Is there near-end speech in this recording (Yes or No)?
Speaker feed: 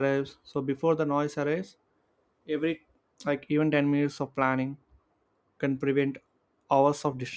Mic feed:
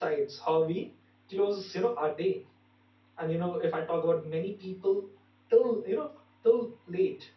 Yes